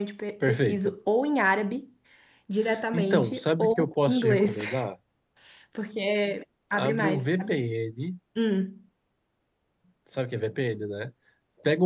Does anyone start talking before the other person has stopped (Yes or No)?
Yes